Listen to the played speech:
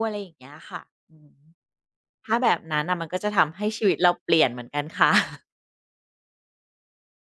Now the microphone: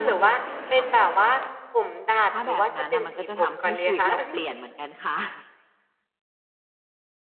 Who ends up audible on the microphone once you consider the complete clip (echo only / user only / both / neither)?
both